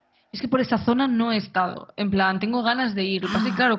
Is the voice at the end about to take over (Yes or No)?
No